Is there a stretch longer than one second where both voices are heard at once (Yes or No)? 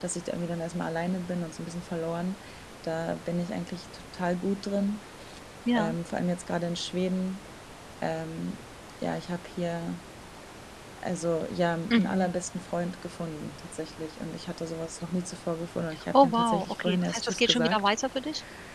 Yes